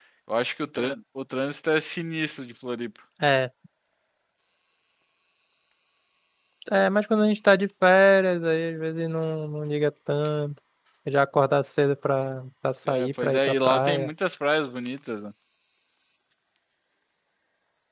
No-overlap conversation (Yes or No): No